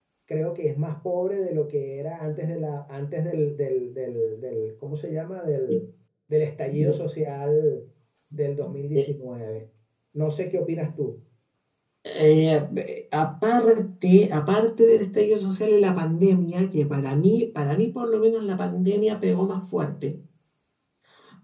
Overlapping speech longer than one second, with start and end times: none

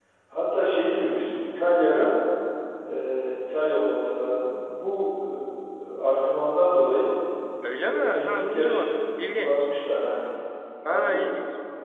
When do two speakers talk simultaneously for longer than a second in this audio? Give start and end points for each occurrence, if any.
7.8-9.7

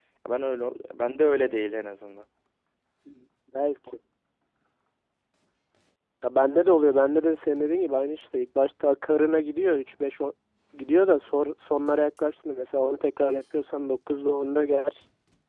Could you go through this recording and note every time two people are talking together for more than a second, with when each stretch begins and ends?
none

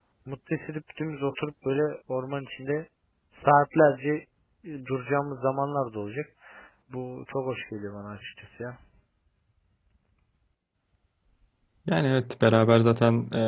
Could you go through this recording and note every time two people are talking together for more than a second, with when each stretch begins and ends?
none

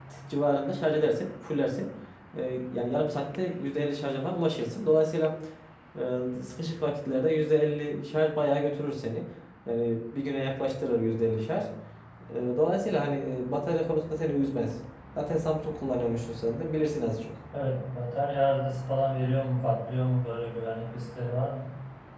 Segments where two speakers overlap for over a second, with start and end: none

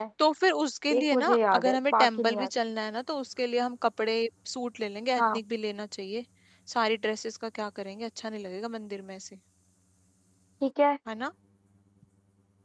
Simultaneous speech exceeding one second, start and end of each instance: 1.0-2.5

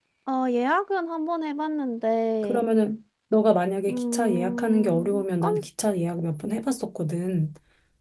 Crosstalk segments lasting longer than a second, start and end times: 3.9-5.5

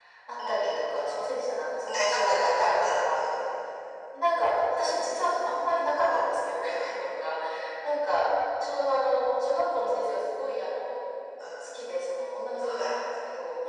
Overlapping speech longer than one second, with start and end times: 1.9-3.4

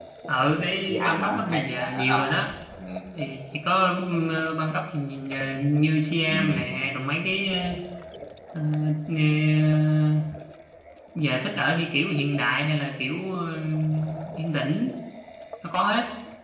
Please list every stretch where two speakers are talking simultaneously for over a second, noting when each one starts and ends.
0.9-2.2

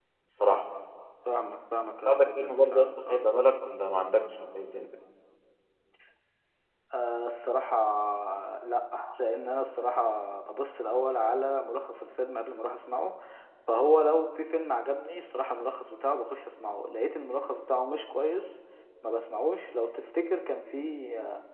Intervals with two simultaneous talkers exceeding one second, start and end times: 2.1-3.3

